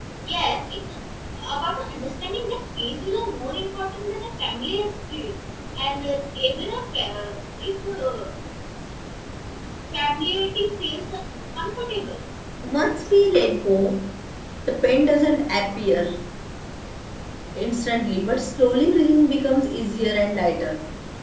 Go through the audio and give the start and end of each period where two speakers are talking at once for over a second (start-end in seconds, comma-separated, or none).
none